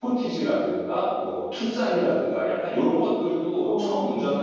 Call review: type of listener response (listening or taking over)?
listening